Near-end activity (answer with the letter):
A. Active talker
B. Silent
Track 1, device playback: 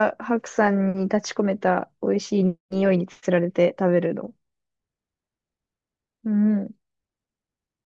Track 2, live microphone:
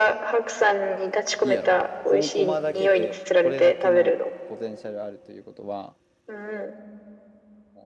A